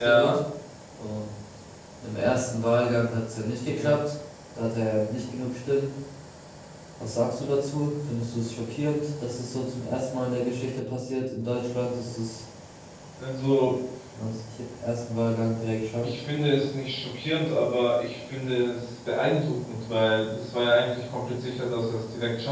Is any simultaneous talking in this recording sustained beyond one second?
No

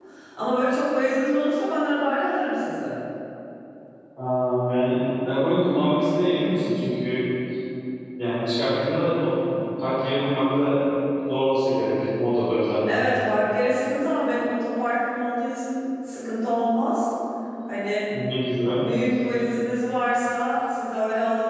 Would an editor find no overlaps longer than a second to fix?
Yes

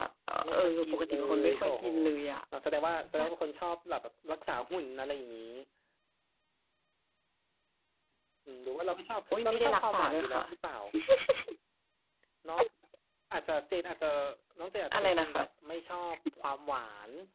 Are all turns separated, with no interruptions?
No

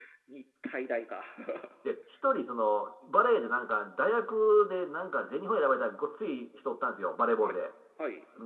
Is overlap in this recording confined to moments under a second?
Yes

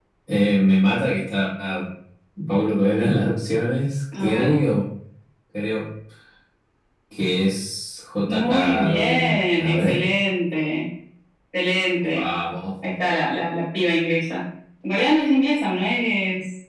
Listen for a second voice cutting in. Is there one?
Yes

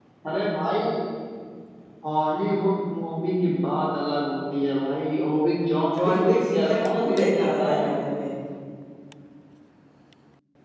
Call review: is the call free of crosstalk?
No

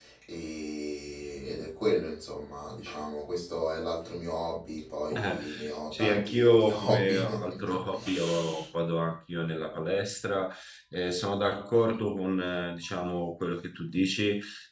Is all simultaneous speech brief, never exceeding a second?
No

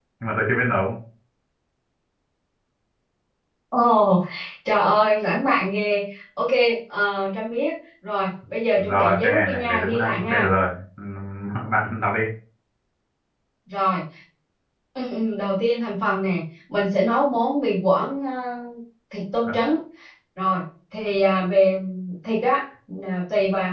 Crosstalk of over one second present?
Yes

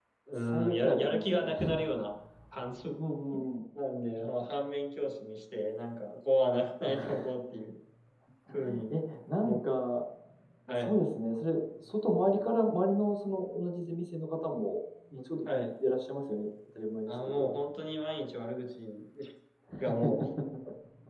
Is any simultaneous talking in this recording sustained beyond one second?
Yes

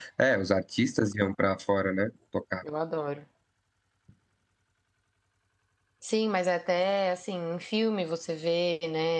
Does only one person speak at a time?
Yes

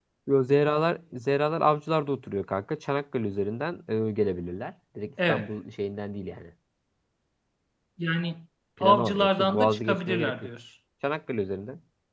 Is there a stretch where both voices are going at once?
Yes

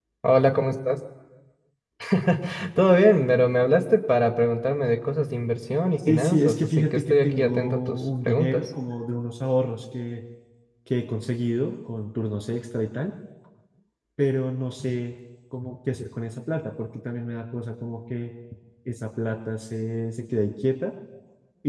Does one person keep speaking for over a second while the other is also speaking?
Yes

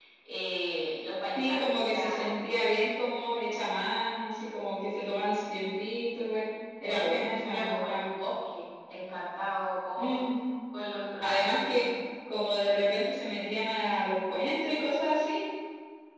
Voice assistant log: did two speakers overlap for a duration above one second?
Yes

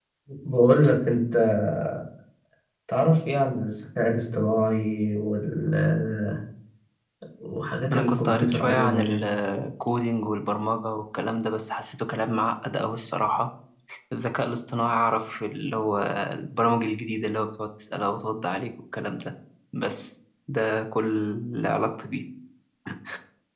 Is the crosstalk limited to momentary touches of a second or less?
No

